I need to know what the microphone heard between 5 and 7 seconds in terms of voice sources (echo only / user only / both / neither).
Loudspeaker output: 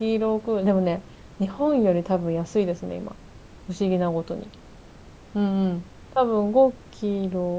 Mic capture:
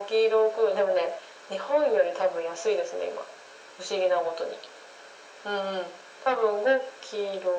echo only